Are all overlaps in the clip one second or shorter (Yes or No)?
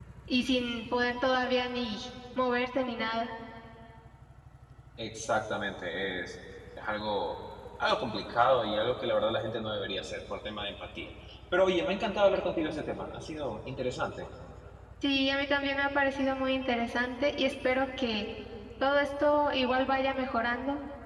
Yes